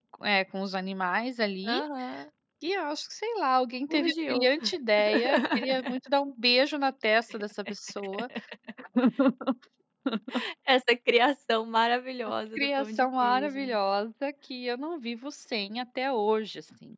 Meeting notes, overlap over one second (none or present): present